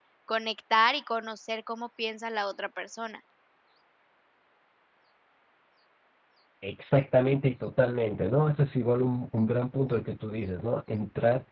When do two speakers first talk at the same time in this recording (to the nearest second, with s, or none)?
none